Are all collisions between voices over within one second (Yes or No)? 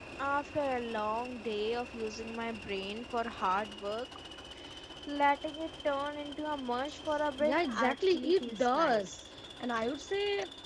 No